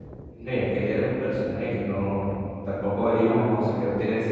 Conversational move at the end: listening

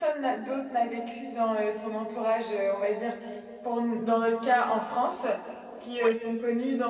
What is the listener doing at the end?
listening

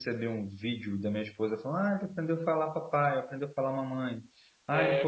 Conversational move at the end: listening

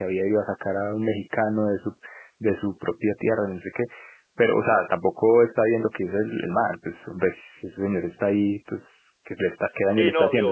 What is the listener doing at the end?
taking over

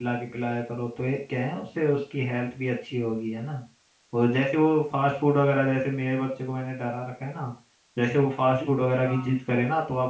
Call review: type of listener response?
listening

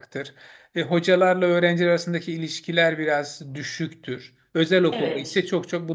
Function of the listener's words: listening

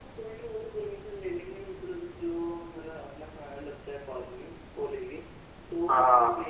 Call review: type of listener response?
listening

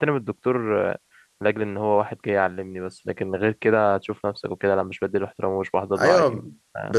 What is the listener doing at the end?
taking over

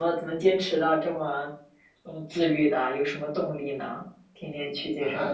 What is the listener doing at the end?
taking over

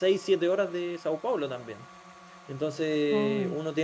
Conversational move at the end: listening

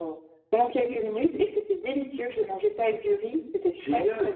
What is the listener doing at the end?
taking over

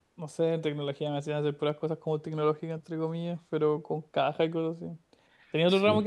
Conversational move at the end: listening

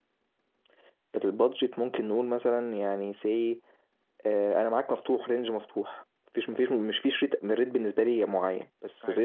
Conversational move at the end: listening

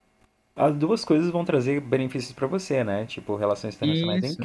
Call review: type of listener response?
listening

